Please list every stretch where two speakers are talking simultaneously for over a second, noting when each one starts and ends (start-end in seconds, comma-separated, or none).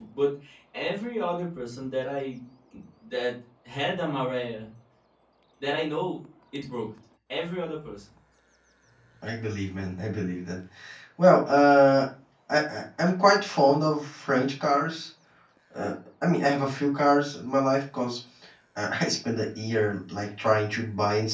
none